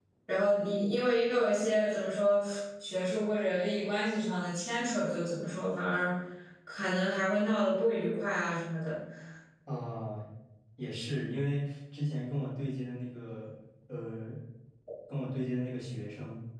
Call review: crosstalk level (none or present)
none